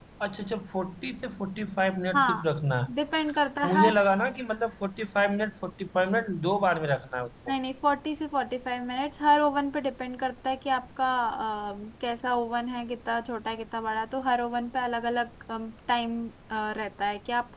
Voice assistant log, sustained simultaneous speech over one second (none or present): none